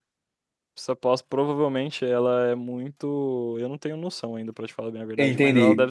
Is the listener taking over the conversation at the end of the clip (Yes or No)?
No